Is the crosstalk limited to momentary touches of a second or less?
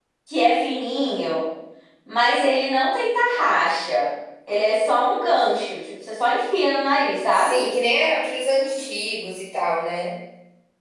Yes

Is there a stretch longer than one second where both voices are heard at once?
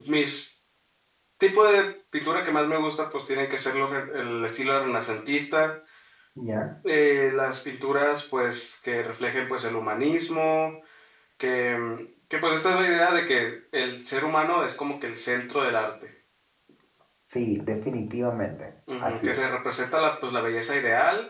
No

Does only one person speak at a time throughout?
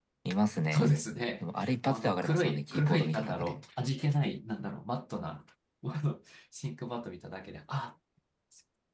No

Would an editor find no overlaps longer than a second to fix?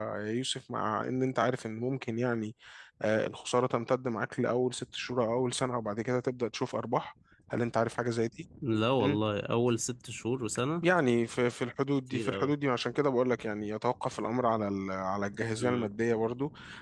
Yes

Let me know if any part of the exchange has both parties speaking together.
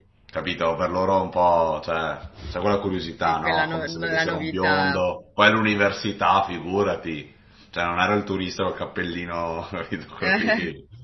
Yes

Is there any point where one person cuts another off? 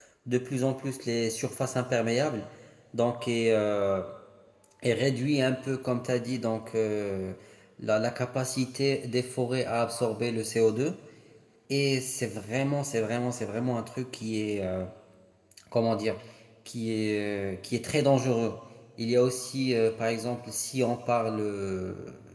No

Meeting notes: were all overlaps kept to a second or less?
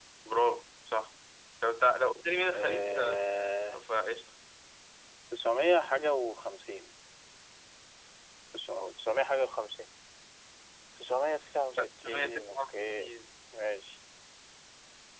No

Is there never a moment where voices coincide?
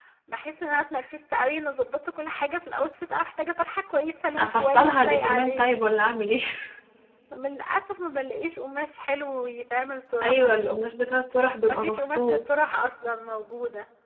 No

